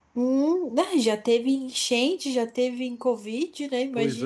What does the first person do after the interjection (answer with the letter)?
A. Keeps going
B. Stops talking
B